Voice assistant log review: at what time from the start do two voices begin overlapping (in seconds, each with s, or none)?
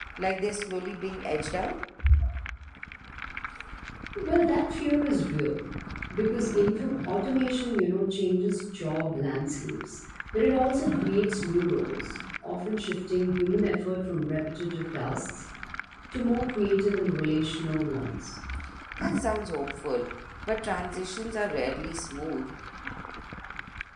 none